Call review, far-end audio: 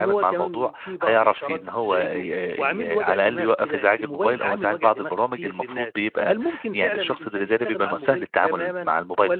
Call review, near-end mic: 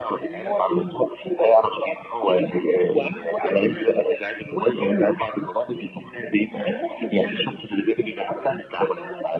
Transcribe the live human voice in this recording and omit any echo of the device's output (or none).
none